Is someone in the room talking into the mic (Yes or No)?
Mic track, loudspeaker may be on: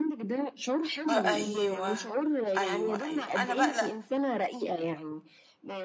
Yes